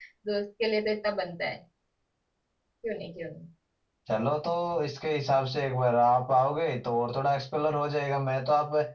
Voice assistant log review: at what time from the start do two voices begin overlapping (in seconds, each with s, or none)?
none